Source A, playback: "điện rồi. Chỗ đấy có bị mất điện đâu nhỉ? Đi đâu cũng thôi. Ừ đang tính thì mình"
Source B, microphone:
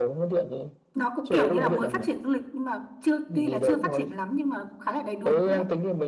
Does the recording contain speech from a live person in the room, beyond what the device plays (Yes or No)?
Yes